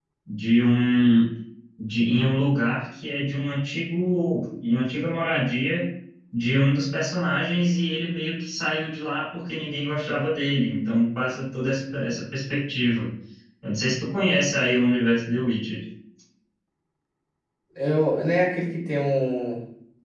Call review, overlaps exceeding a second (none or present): none